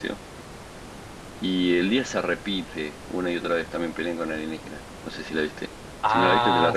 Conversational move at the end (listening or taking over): taking over